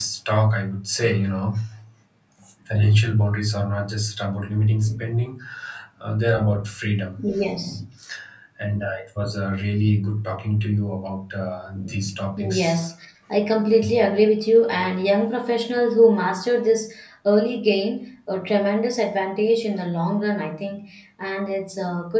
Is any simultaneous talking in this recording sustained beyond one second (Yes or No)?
No